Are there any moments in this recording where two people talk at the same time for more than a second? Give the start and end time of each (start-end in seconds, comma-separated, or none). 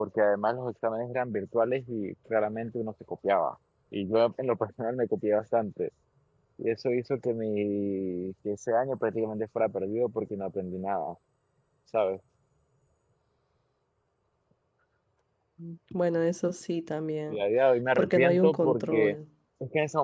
18.0-19.2